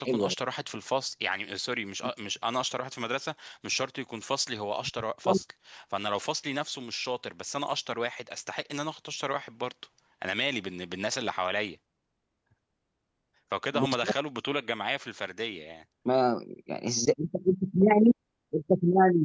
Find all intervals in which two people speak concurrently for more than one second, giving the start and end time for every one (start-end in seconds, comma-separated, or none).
none